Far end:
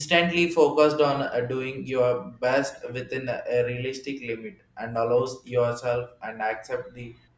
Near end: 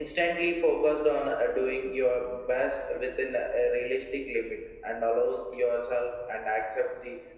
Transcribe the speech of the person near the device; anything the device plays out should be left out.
none

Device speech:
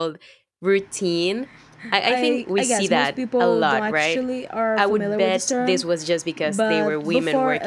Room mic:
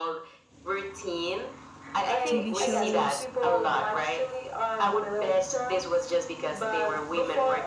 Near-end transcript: TV shows,

